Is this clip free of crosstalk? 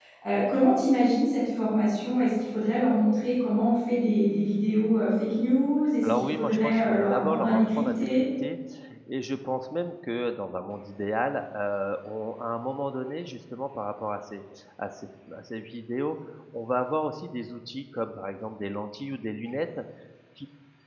No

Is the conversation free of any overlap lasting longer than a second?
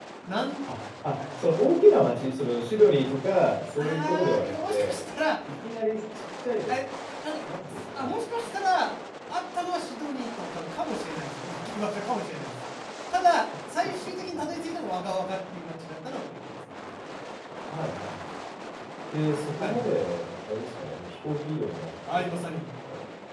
No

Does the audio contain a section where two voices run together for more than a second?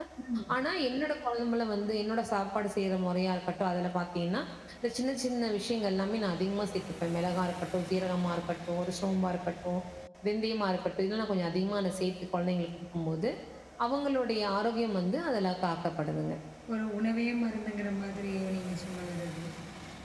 No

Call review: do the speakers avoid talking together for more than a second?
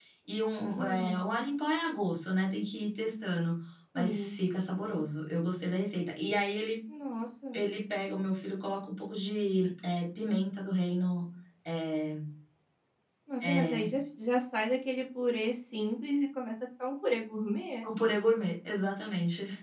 Yes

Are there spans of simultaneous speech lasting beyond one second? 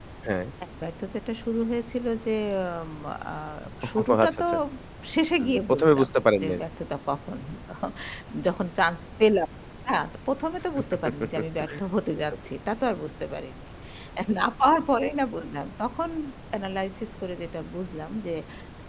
Yes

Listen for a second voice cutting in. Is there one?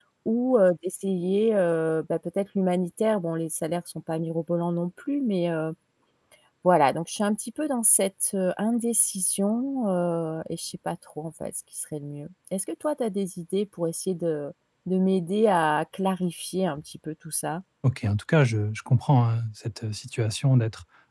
No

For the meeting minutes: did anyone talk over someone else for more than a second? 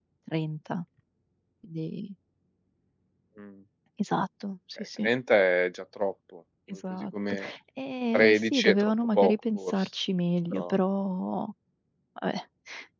Yes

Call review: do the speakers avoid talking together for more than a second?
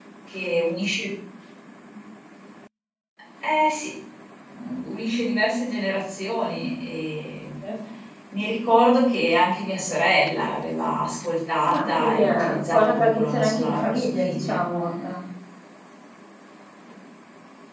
No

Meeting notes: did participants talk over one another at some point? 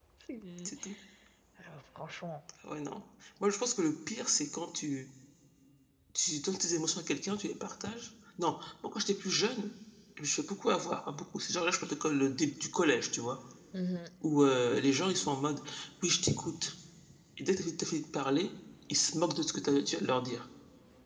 No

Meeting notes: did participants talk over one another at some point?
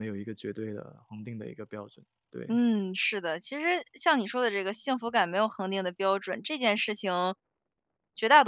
No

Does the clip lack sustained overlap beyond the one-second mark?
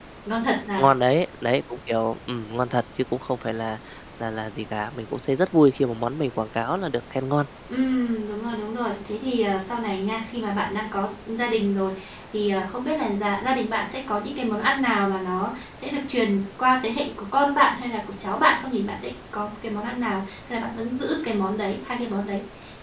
Yes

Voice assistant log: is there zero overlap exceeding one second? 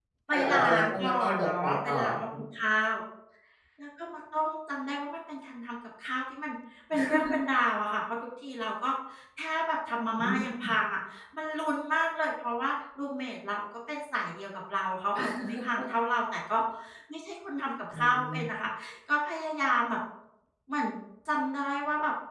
No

